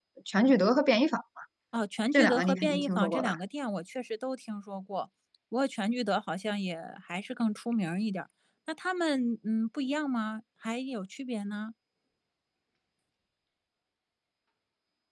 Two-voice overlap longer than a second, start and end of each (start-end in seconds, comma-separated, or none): 2.1-3.3